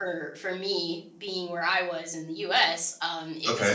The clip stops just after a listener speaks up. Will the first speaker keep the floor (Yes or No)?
Yes